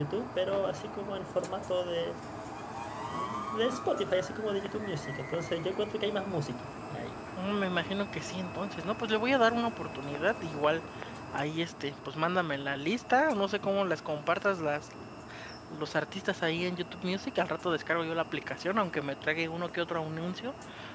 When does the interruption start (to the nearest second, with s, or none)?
none